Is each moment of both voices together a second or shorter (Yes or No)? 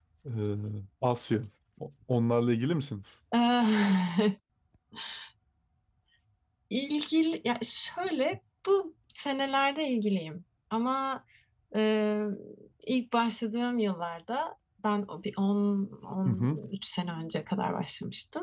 Yes